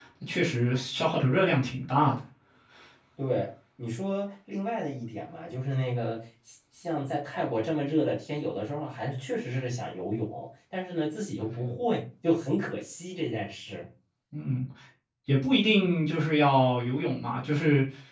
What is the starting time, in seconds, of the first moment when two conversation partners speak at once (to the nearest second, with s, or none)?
none